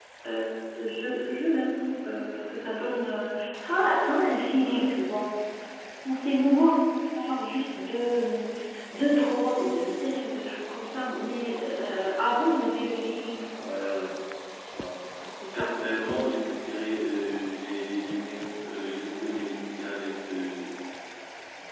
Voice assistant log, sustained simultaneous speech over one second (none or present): none